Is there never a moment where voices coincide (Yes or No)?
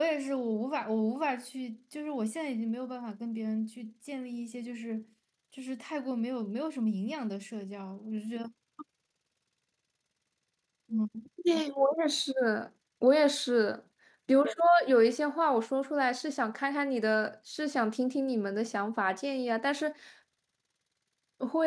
Yes